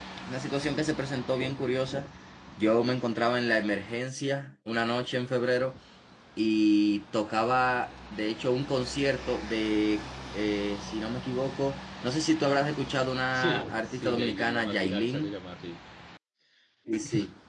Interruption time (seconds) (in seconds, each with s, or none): 13.3 s